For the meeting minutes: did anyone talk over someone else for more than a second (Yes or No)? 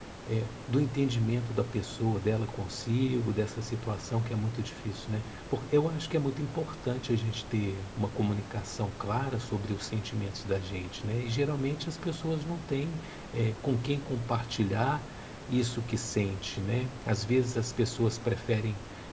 No